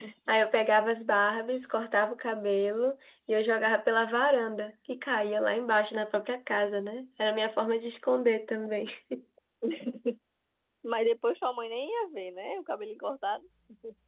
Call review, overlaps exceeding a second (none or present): none